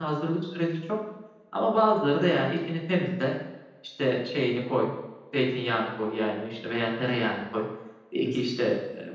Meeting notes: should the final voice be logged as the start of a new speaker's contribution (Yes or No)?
No